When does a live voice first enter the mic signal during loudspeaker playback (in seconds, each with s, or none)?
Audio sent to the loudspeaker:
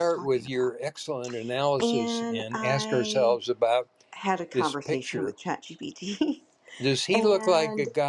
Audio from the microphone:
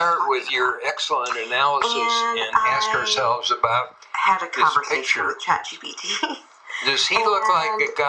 none